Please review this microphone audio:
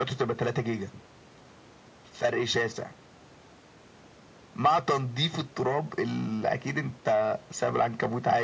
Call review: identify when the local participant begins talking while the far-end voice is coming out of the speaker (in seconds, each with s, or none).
none